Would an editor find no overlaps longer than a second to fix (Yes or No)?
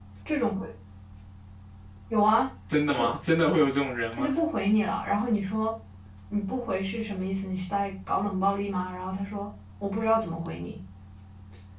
Yes